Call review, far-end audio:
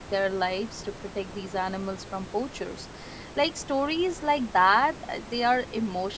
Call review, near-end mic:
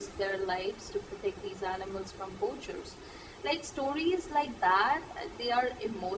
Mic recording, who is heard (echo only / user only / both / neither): echo only